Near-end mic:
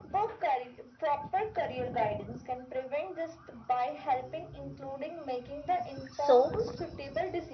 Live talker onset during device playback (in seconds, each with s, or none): 6.1 s